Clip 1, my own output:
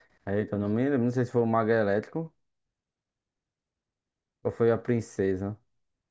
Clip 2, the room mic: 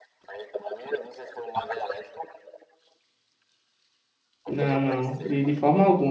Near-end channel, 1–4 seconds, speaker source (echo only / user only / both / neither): echo only